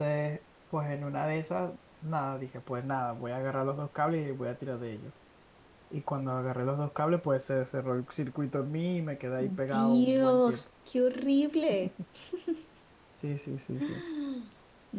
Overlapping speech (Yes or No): Yes